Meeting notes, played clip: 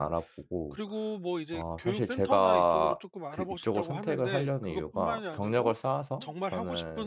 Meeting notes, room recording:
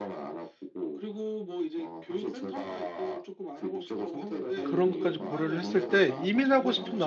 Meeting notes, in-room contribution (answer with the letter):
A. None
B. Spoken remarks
B